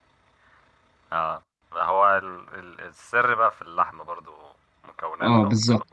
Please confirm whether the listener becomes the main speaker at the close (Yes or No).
Yes